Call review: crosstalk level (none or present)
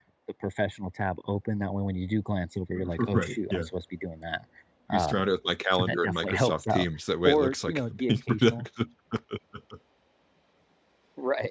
present